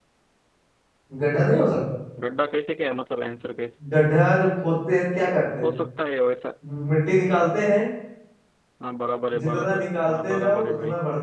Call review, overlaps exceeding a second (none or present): present